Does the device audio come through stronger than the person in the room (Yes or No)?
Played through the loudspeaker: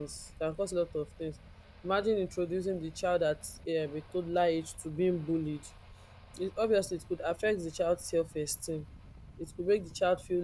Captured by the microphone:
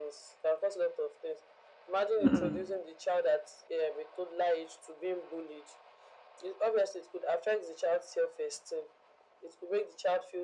No